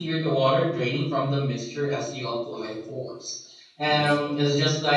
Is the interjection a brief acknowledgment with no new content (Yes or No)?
Yes